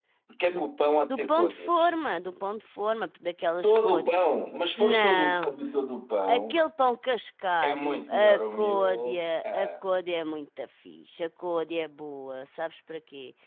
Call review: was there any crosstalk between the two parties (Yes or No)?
Yes